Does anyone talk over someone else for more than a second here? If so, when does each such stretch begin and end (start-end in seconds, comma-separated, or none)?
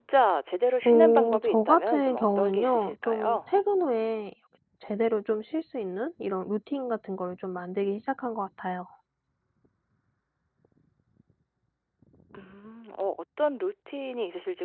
0.8-3.4